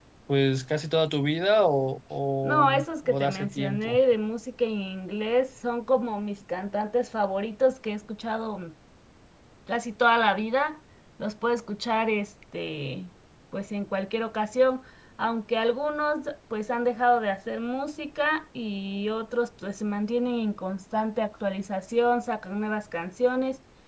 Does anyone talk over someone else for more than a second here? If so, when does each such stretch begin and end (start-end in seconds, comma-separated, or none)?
2.4-4.0